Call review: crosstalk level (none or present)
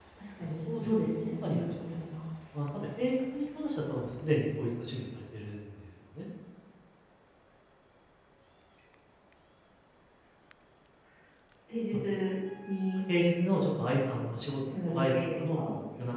present